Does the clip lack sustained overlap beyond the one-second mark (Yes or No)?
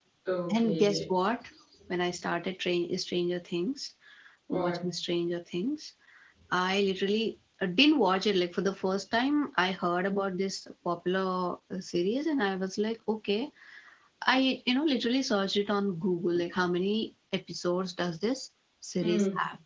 Yes